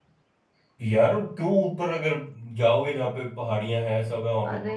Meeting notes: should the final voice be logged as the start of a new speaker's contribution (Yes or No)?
Yes